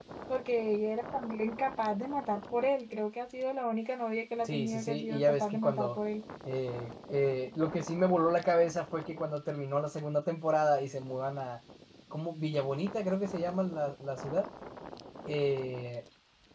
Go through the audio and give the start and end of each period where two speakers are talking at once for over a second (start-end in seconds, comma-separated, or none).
4.4-6.0